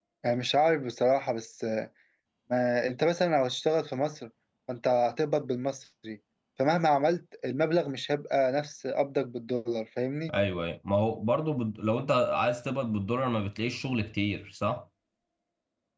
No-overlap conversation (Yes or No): Yes